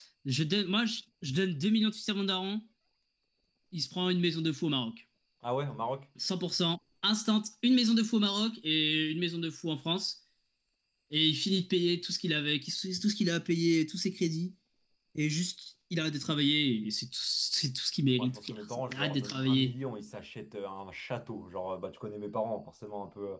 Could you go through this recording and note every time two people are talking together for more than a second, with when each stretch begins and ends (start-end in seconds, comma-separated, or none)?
18.2-19.7